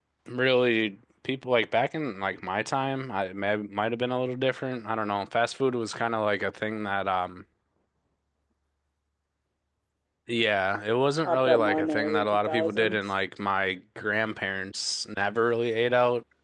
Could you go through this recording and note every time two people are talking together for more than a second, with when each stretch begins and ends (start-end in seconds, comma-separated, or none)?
11.2-12.9